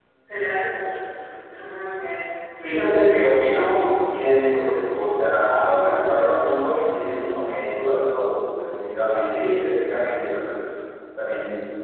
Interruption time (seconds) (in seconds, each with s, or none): none